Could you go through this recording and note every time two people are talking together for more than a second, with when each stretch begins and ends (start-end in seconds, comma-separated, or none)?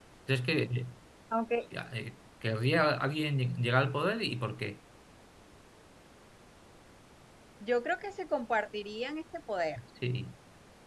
none